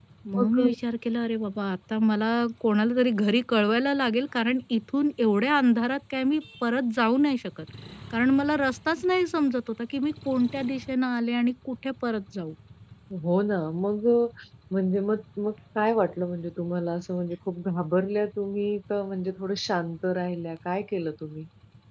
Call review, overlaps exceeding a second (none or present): none